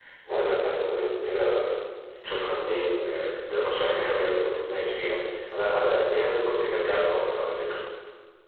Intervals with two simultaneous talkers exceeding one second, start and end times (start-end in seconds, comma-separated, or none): none